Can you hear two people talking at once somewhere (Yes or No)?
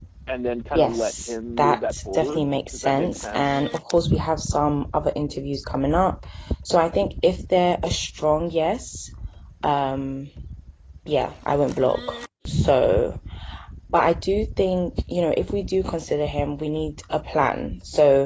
Yes